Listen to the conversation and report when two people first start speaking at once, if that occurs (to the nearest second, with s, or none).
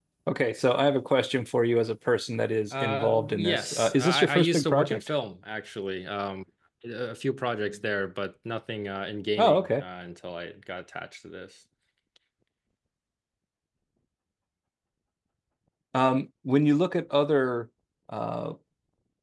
3 s